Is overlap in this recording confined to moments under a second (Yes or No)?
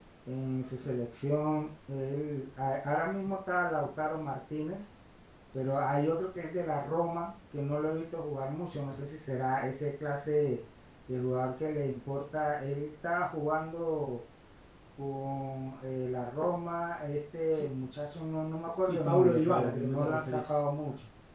No